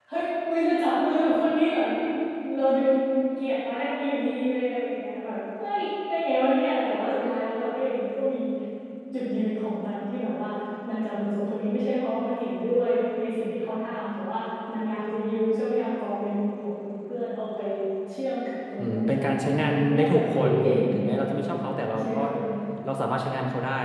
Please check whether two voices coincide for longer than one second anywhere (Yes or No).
Yes